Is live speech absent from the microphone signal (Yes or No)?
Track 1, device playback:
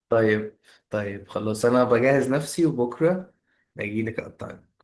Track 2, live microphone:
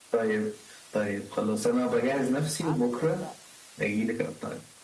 No